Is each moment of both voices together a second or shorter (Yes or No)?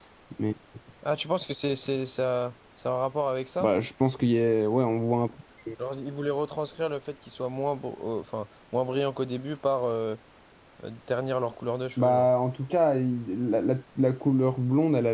Yes